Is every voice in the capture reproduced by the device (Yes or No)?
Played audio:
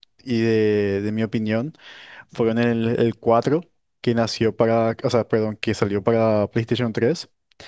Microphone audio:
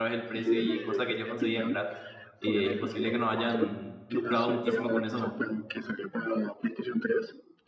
No